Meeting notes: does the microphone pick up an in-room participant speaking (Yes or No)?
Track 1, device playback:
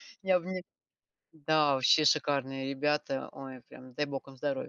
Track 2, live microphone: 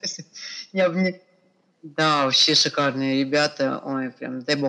No